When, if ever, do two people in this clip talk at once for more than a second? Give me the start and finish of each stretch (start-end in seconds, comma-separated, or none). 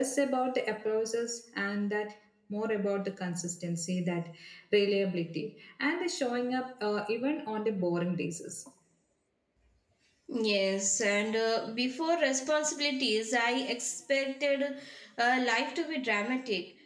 none